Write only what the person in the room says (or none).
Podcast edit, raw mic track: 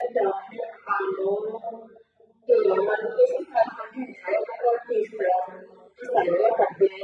none